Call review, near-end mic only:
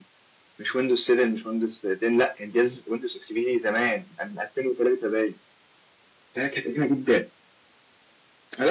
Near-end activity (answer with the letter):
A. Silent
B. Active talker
A